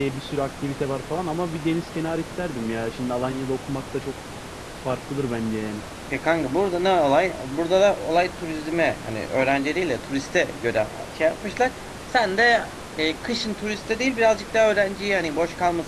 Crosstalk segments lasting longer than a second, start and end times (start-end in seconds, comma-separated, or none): none